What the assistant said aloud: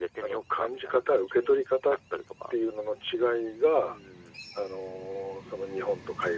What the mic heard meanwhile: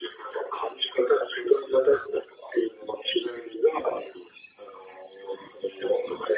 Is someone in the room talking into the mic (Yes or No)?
No